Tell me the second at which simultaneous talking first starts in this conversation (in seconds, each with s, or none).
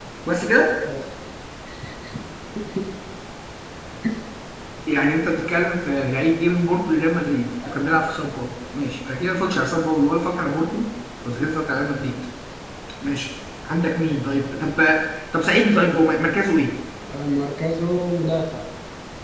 none